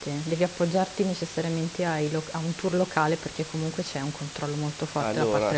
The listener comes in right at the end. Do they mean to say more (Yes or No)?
Yes